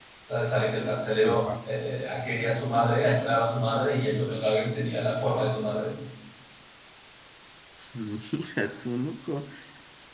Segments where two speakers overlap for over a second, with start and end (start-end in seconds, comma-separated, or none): none